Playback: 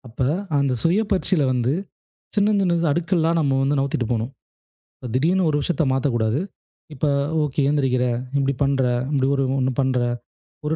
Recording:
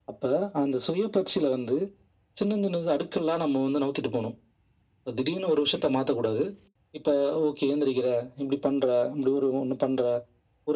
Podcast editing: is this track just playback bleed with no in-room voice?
Yes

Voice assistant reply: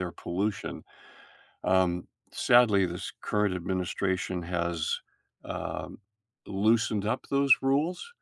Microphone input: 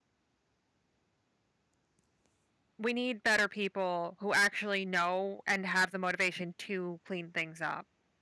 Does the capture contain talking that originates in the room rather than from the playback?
Yes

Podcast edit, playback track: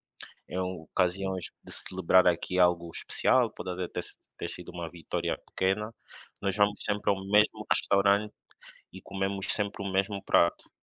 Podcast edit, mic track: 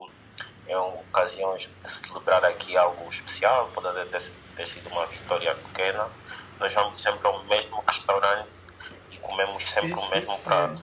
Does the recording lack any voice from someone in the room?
No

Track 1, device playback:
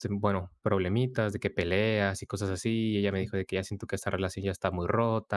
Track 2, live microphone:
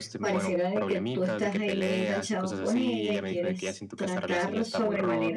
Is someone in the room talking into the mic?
Yes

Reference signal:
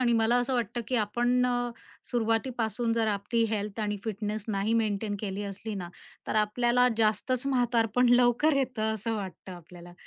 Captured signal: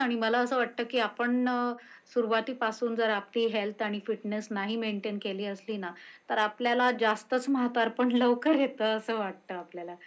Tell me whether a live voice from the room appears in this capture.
No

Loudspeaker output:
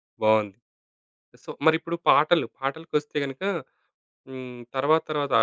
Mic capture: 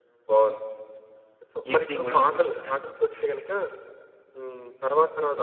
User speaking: Yes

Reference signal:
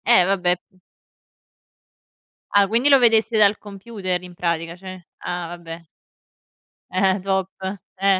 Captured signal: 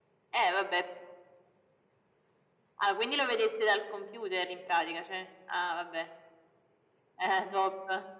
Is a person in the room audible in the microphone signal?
No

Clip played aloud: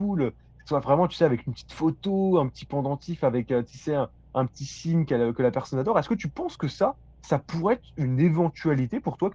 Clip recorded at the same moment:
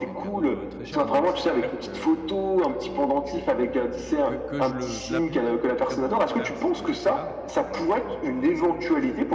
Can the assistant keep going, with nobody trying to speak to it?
No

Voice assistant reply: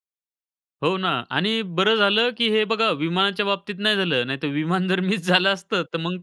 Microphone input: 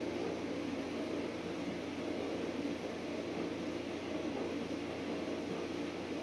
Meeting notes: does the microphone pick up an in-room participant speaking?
No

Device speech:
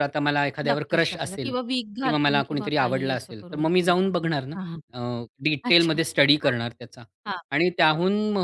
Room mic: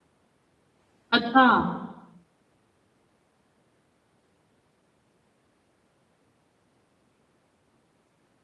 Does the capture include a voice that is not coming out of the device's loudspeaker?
Yes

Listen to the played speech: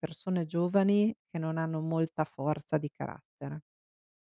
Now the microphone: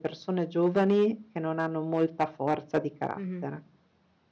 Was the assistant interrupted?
Yes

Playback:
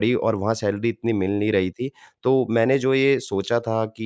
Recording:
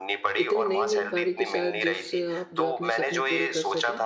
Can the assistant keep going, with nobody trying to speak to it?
No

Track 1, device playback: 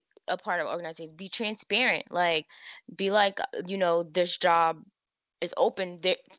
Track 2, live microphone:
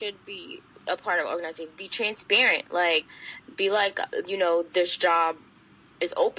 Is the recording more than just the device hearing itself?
No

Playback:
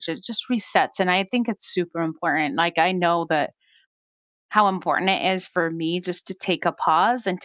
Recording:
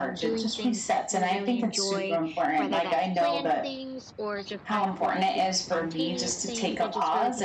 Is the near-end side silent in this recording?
No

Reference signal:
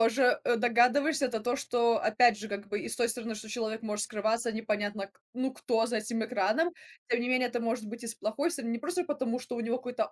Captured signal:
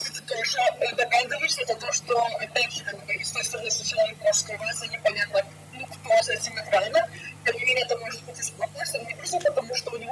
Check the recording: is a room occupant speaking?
No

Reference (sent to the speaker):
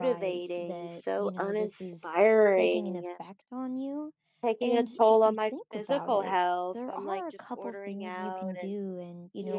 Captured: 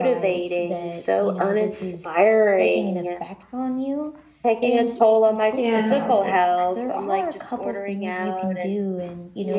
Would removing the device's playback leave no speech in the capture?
No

